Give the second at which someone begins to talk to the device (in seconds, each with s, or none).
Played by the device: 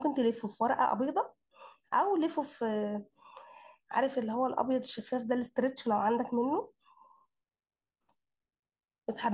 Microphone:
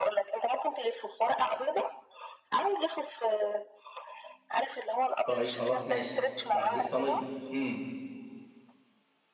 5.2 s